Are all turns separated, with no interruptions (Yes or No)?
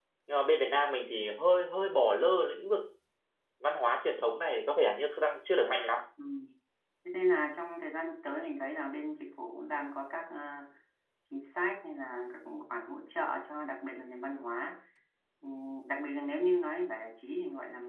Yes